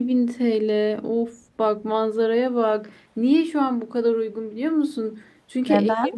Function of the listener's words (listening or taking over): listening